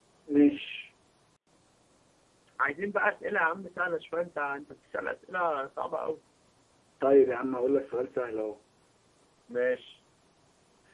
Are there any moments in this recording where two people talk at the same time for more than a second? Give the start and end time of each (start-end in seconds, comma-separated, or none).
none